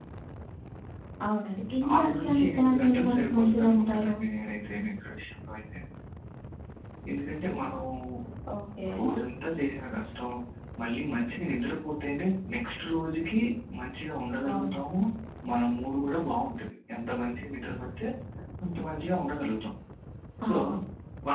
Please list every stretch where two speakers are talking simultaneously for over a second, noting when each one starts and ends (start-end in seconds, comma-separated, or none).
2.0-4.2